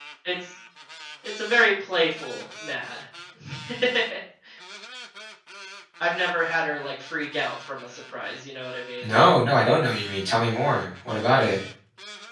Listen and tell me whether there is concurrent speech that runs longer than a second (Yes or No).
No